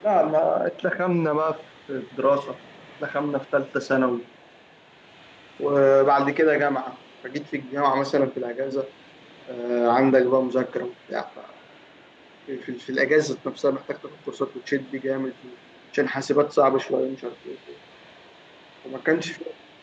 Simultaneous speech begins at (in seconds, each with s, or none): none